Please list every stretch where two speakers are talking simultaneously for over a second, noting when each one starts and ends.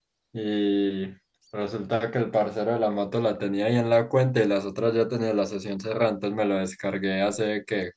none

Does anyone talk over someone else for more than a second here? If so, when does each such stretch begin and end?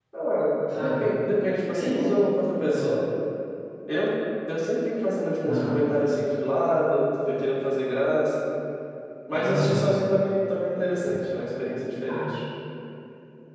none

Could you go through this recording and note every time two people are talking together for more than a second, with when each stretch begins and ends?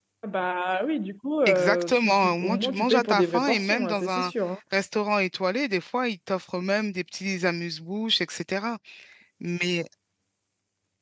1.5-4.3

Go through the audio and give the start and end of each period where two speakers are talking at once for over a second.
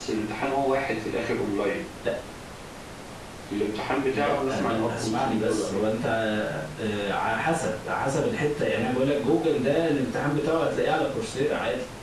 4.1-5.9

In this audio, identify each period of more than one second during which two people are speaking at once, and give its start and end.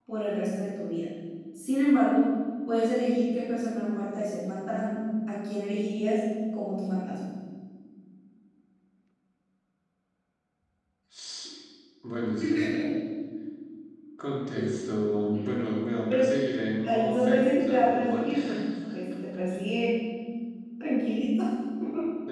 16.8-18.3

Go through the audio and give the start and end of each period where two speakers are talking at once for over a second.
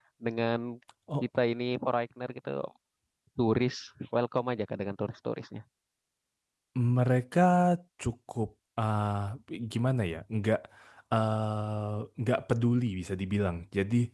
none

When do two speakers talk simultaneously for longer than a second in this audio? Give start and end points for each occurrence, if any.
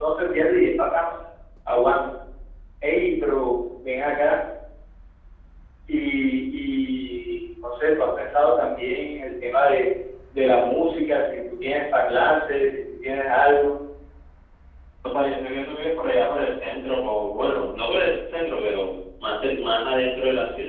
none

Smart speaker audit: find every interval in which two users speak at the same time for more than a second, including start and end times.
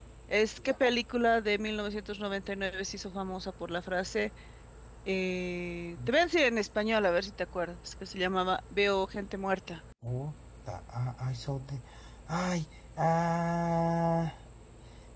none

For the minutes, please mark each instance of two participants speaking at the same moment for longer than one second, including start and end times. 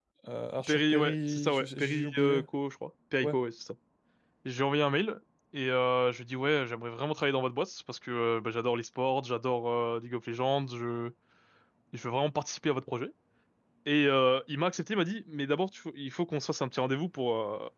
0.6-2.4

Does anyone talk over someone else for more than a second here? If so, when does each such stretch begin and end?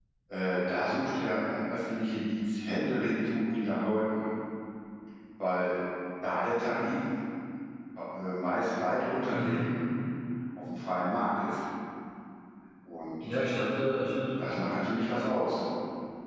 none

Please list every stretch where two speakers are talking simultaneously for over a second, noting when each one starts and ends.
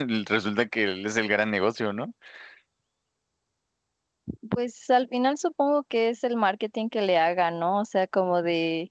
none

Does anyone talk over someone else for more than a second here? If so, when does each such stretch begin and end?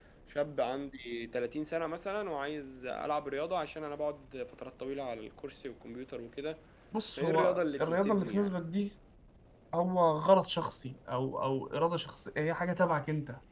7.2-8.5

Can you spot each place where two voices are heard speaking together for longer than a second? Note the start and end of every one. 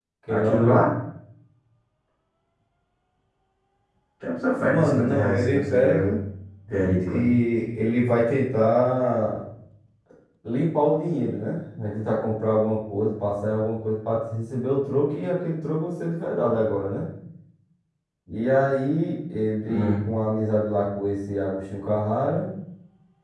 4.6-6.1

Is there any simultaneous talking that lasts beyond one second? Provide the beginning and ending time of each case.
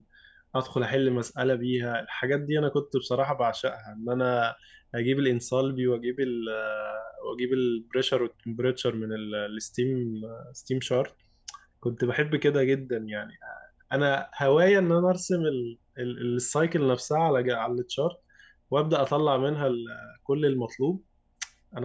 none

